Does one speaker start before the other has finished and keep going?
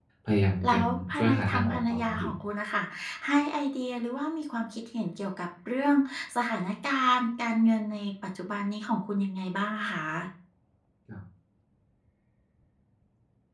Yes, from 0.7 s

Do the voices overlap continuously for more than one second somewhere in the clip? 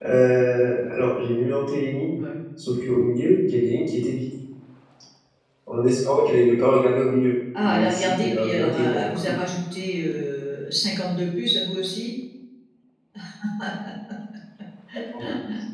Yes, from 7.6 s

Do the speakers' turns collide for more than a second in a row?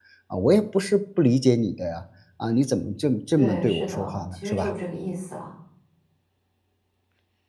Yes, from 3.4 s

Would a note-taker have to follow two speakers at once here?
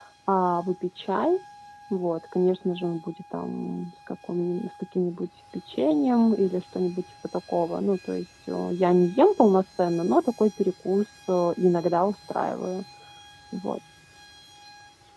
No

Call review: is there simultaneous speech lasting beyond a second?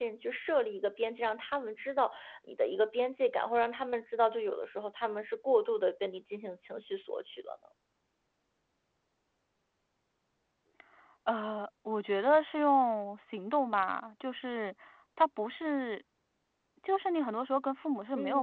No

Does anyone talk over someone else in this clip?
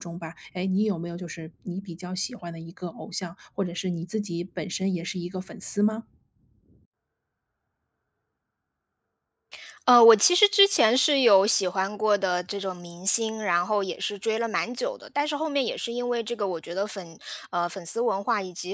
No

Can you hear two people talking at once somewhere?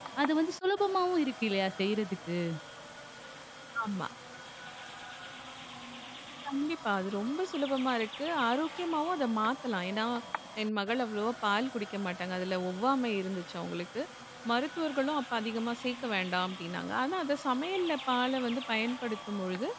No

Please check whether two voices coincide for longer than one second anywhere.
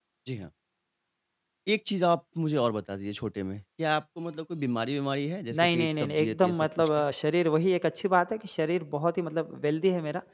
Yes, from 5.5 s

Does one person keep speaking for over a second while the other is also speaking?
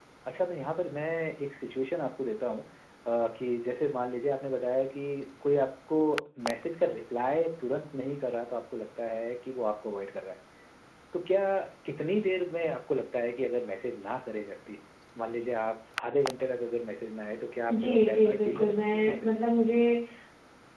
Yes, from 17.7 s

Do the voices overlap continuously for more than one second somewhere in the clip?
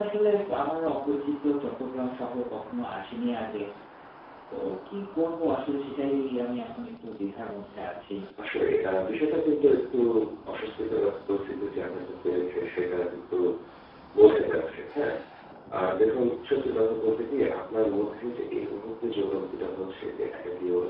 No

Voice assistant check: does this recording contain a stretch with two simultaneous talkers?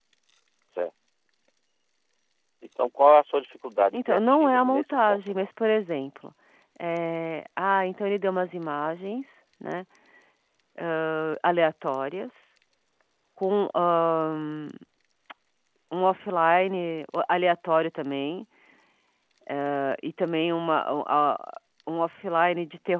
Yes, from 3.9 s

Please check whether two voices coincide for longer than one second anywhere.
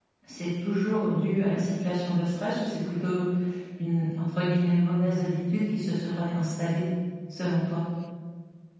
No

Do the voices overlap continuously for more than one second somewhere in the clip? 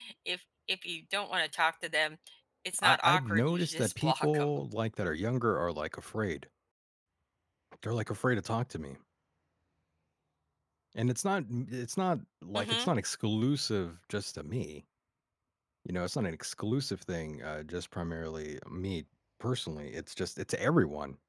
Yes, from 2.8 s

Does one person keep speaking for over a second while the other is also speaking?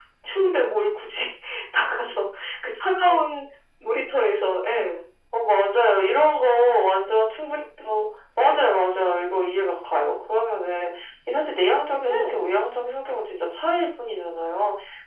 No

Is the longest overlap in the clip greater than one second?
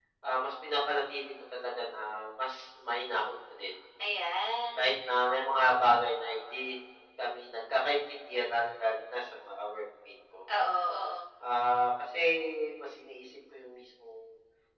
No

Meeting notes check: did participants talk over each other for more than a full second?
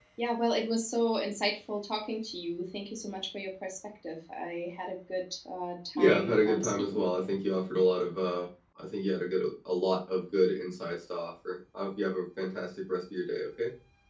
Yes, from 6.0 s

